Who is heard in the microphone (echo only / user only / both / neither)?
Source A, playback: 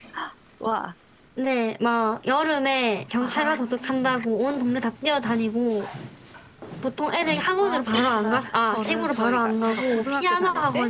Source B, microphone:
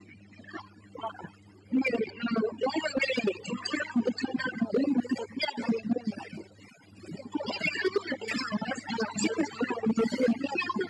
echo only